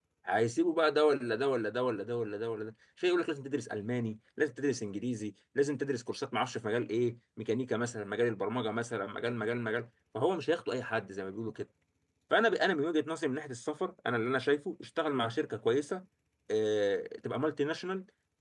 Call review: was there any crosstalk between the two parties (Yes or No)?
No